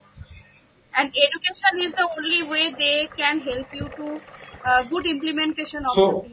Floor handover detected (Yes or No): Yes